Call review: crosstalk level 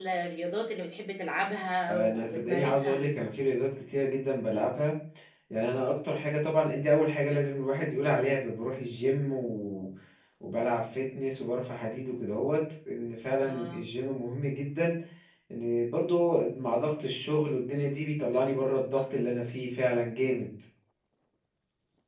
present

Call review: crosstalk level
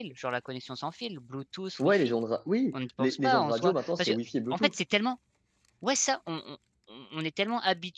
present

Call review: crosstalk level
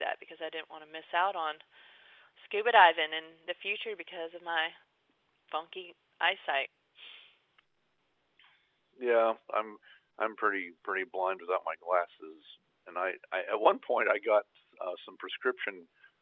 none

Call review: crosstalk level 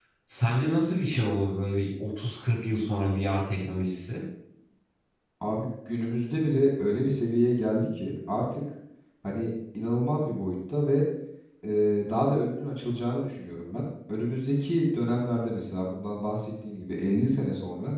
none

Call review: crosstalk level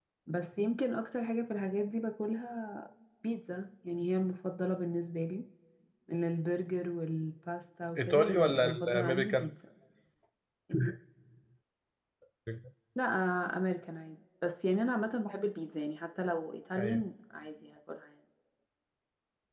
present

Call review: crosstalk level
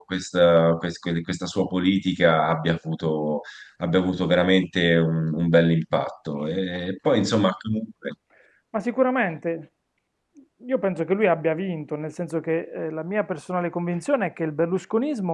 none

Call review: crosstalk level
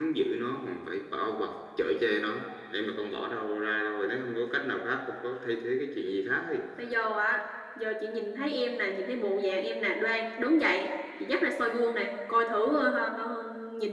none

